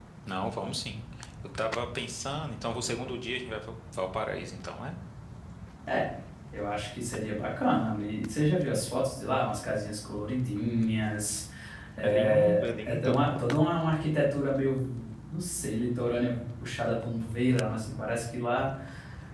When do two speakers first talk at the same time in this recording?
12.0 s

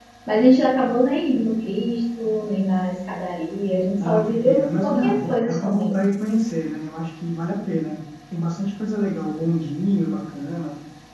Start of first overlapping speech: 4.0 s

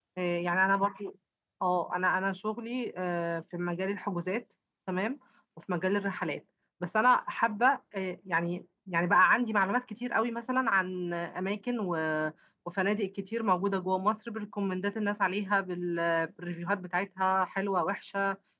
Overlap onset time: none

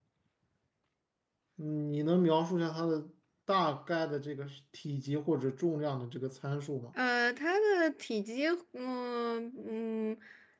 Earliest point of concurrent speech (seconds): none

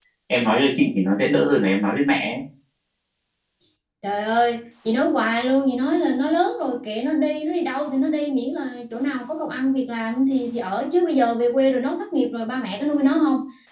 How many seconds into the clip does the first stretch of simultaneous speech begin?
none

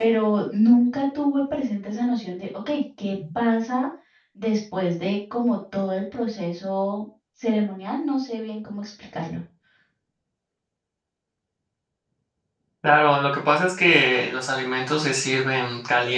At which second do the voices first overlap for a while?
none

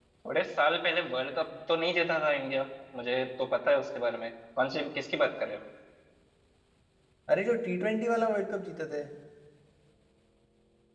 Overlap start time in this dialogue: none

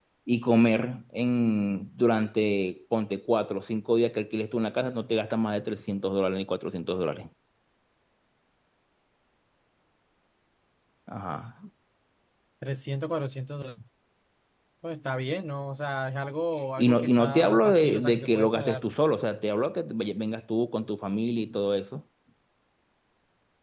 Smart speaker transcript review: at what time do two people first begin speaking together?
16.8 s

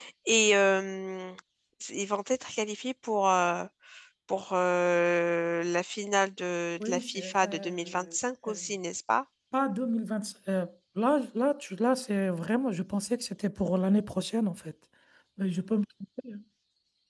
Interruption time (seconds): 6.8 s

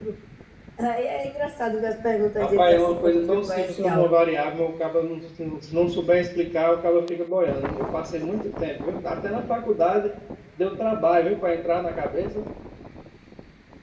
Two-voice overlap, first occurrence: 2.4 s

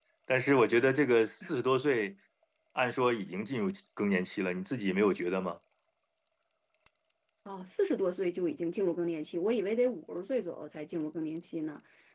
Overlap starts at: none

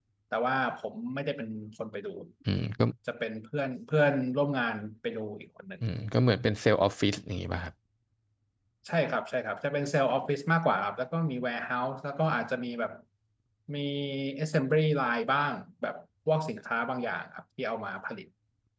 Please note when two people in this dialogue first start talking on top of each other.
none

